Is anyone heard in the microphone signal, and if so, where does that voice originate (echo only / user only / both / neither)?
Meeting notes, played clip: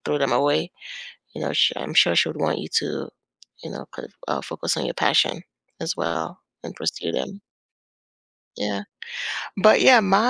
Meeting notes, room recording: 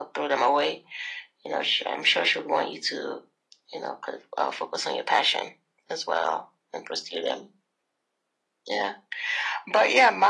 echo only